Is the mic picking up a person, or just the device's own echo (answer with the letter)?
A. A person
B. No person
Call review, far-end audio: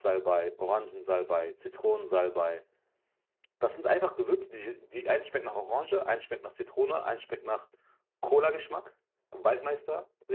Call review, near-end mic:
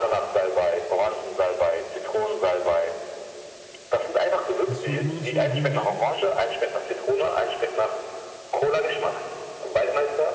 A